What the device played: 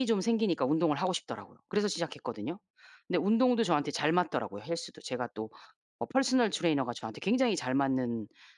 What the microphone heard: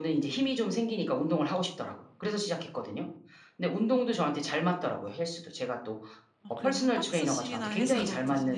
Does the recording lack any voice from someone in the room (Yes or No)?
No